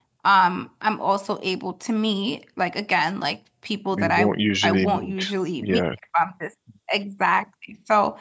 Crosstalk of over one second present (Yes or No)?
Yes